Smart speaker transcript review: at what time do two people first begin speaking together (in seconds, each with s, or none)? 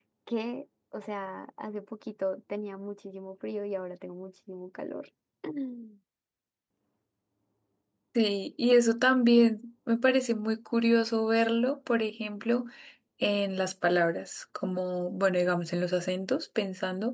none